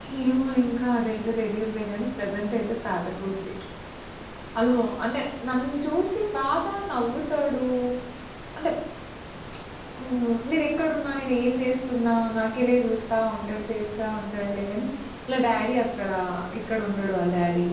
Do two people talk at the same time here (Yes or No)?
No